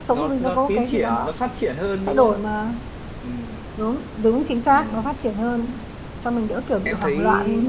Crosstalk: present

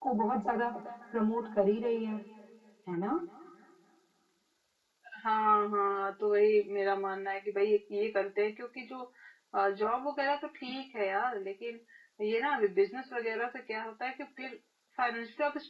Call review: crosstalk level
none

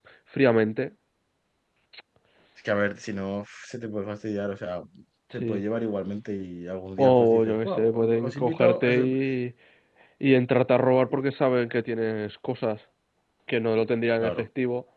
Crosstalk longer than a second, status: present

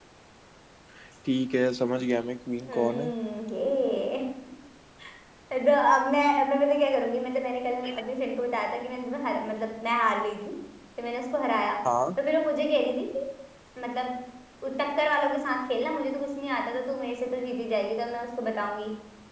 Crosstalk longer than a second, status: none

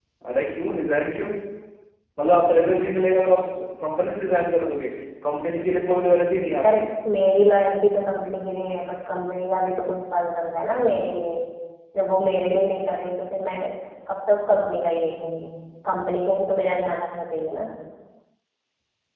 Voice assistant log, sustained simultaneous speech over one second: none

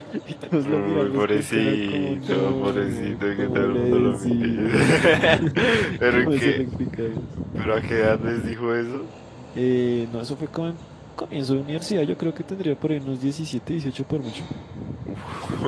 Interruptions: present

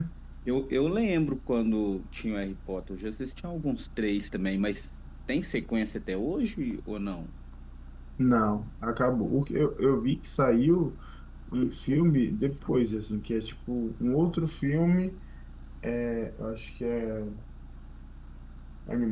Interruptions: none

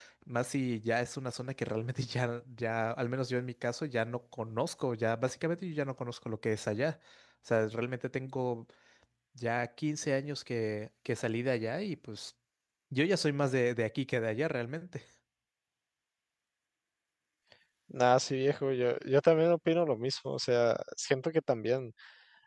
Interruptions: none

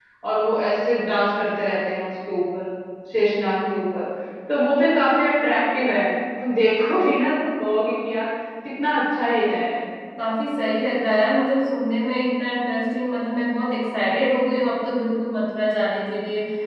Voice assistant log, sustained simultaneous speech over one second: none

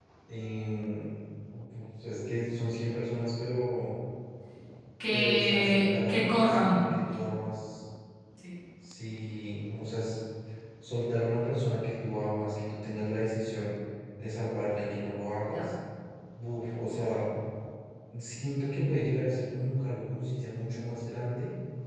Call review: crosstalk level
present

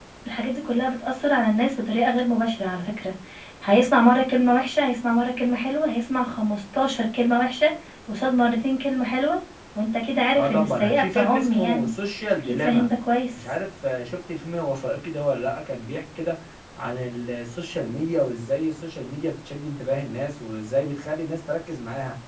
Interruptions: present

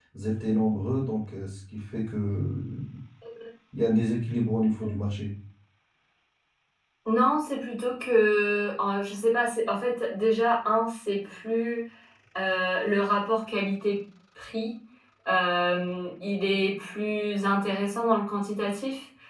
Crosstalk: none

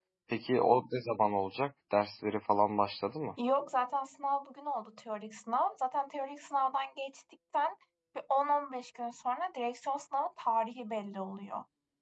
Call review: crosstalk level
none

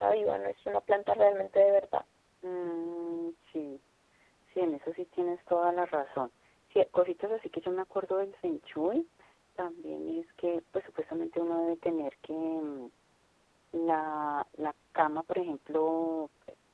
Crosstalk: none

